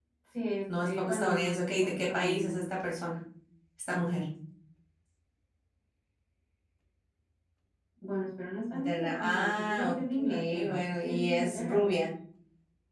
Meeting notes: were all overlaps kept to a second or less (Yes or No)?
No